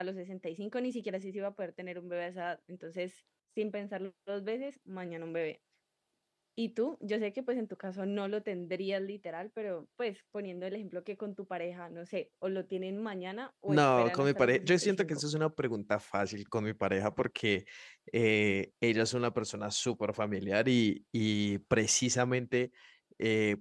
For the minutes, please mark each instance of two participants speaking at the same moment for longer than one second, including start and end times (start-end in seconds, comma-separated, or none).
13.7-15.2